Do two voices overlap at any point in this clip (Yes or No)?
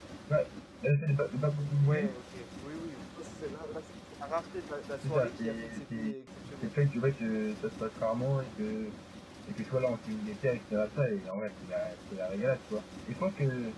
Yes